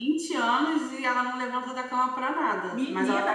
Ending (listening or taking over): taking over